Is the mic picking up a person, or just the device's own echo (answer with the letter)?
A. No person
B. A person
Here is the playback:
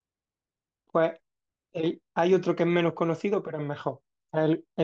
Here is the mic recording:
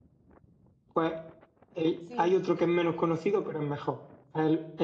B